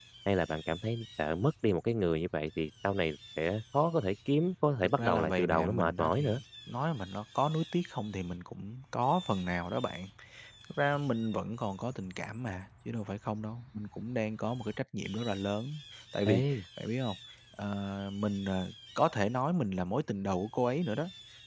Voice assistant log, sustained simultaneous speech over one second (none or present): present